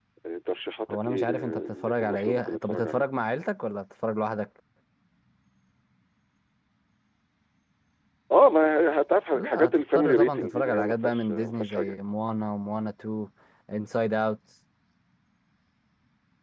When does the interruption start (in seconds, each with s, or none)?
0.9 s